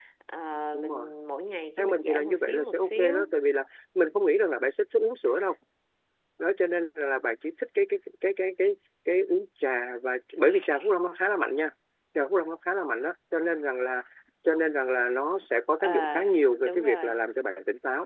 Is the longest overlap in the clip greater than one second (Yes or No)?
Yes